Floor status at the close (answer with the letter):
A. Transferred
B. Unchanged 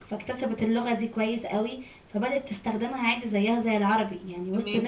A